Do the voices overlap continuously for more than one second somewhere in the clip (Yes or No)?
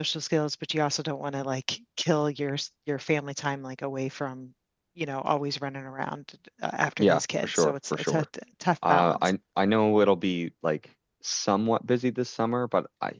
Yes